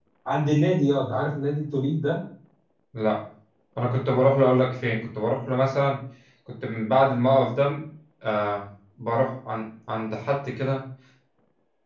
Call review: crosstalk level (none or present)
none